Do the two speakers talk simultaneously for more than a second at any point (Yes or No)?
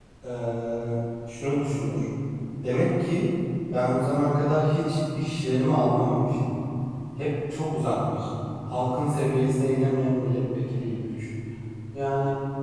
No